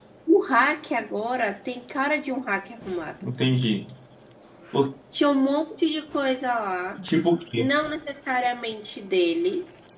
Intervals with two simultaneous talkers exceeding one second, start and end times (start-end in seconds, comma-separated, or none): none